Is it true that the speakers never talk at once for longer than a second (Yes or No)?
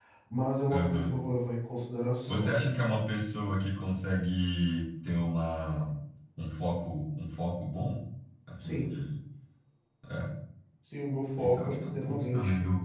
No